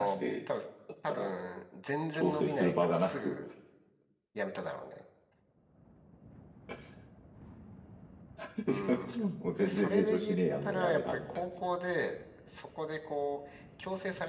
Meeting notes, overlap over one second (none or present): present